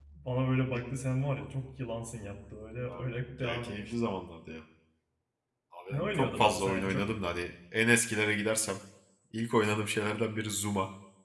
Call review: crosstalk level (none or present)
present